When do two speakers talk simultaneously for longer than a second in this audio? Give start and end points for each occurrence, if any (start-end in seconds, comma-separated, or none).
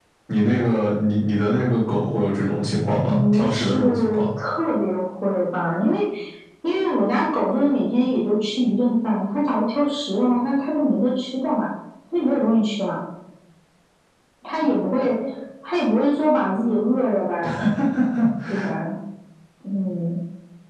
3.0-4.2